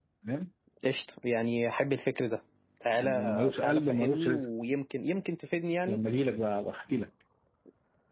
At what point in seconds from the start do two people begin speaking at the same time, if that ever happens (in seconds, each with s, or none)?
3.0 s